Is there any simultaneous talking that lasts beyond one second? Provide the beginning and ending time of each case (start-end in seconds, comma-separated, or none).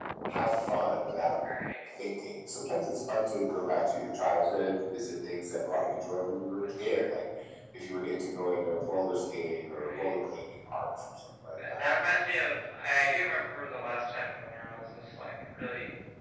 none